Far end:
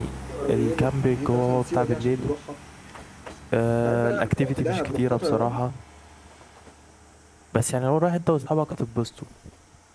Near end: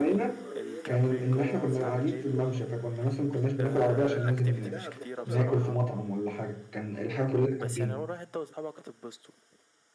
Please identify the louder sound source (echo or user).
user